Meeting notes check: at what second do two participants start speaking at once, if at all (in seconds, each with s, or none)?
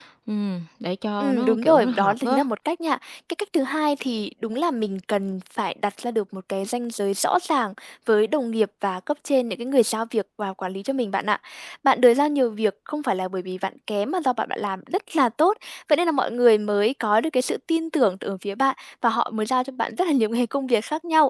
1.2 s